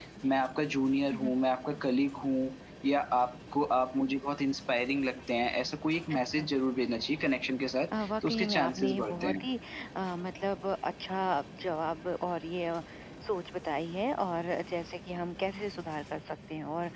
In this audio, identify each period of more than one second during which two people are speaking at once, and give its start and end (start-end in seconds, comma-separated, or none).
8.0-9.5